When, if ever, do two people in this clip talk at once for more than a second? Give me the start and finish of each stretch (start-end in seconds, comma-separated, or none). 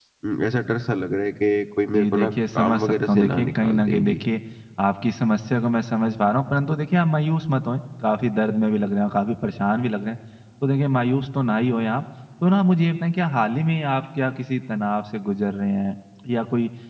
1.9-4.2